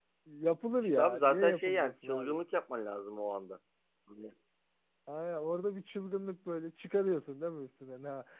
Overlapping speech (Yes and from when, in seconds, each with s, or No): Yes, from 0.8 s